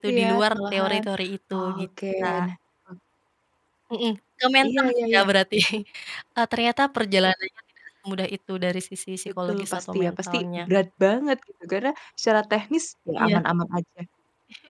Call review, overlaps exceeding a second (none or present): present